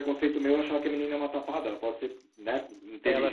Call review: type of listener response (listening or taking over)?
taking over